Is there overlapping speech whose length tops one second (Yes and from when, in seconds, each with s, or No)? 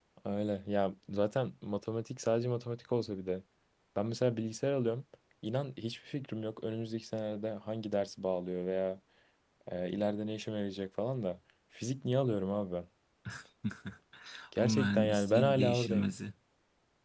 Yes, from 14.6 s